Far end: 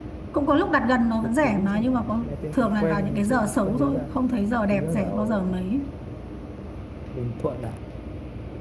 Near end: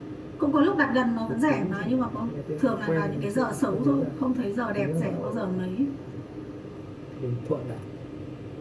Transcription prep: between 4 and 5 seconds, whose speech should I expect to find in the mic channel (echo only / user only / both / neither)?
echo only